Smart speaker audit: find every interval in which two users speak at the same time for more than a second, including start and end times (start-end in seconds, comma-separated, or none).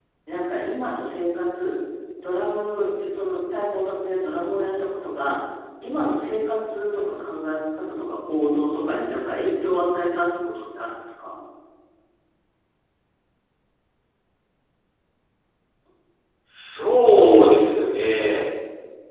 none